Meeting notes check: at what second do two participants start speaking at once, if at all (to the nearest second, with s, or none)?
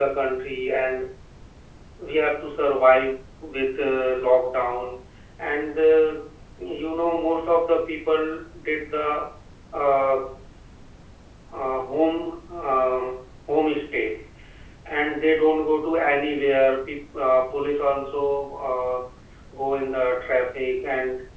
none